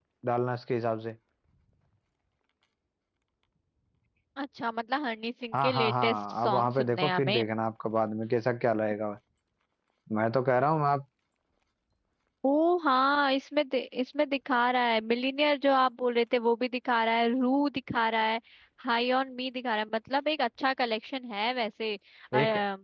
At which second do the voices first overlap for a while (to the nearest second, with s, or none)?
6 s